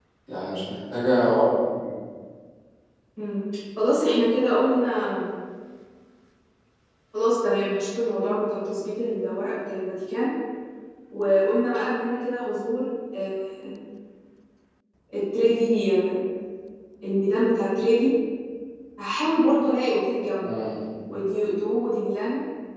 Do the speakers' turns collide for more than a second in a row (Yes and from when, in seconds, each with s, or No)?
No